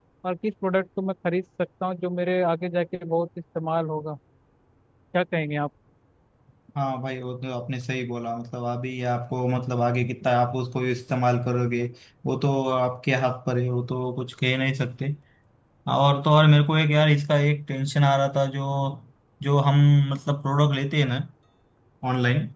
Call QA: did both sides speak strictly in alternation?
Yes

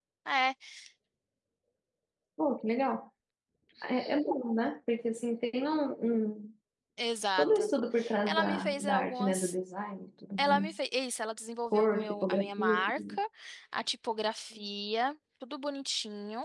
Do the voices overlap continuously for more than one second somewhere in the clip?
Yes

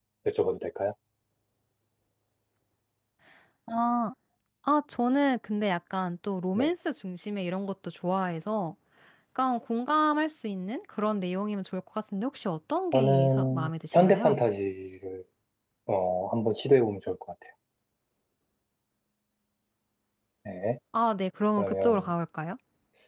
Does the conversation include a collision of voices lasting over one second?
Yes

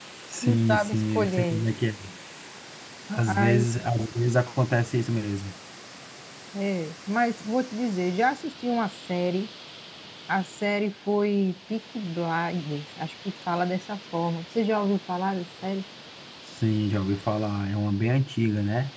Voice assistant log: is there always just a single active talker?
No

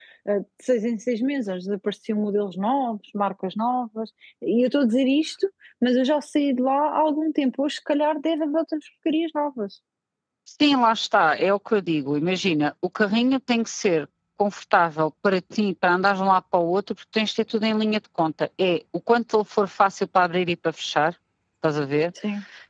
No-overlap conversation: Yes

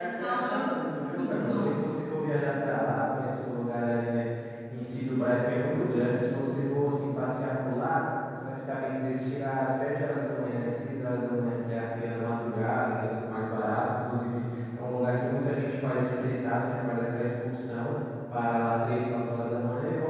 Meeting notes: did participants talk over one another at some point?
Yes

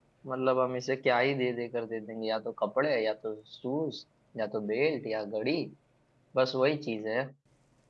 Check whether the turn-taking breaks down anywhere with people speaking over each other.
No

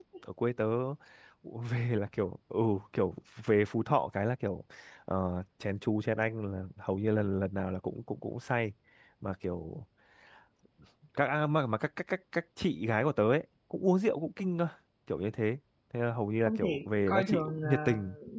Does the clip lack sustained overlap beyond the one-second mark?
No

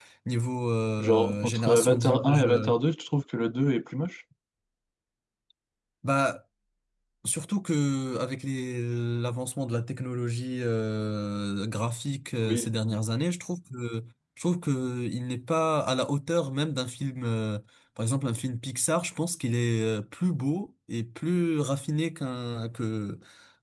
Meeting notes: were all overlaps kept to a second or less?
No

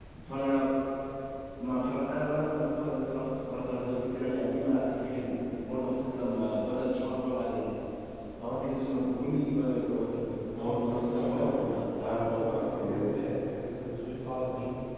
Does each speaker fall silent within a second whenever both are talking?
No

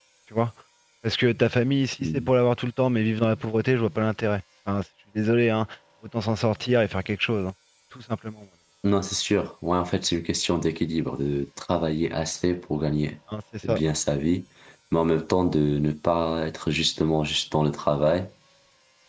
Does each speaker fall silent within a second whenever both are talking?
Yes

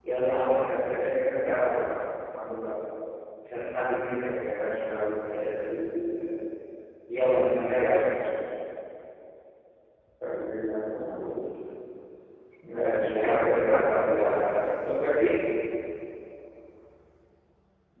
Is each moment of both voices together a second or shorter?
No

